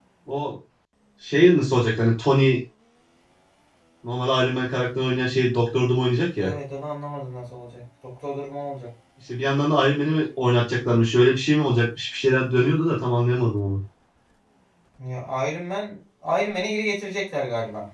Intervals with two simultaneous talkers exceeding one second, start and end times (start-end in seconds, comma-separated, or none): none